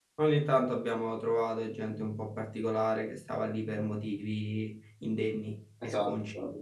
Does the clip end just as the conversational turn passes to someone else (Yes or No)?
Yes